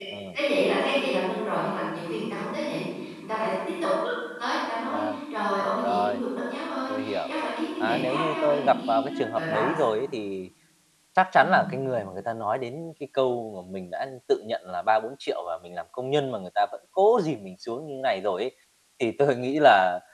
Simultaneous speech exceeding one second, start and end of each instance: 7.8-9.8

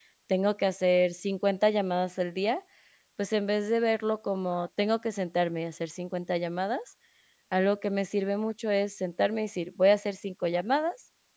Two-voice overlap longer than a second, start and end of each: none

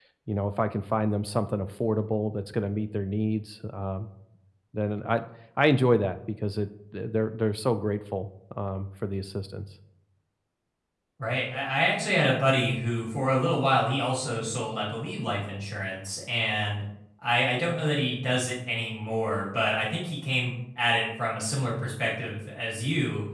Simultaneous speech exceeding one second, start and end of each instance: none

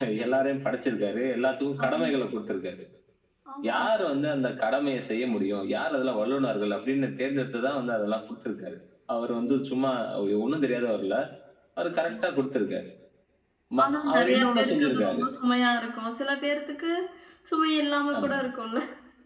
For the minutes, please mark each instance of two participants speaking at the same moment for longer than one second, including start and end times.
13.8-15.2

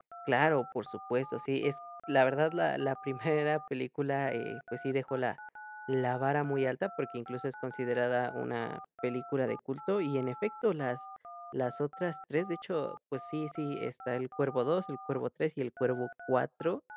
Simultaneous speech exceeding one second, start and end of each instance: none

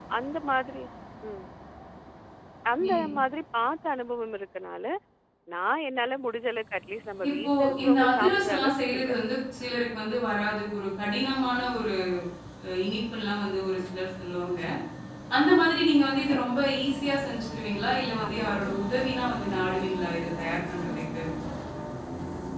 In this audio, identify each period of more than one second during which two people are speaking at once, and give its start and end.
7.3-9.2

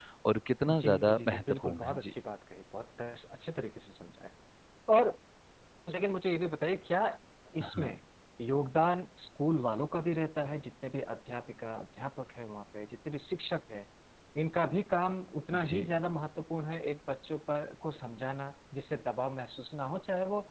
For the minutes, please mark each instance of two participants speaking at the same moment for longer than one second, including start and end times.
0.7-2.1

